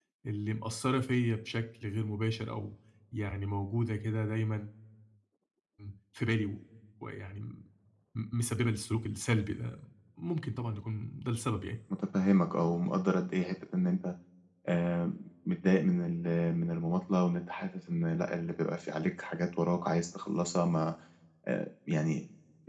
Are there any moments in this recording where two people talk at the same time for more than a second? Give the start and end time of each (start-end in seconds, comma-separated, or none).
none